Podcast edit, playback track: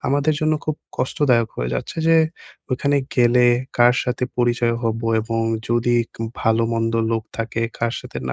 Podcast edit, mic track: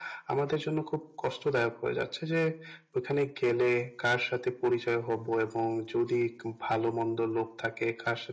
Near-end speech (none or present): none